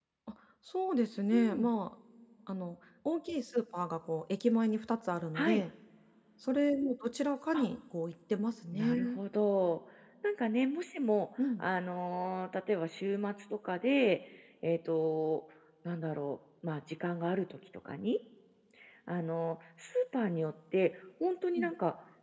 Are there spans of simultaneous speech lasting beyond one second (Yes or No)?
No